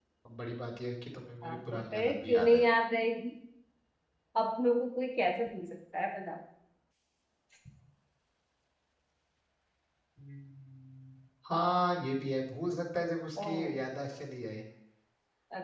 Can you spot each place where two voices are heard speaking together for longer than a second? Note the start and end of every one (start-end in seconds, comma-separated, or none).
1.4-2.6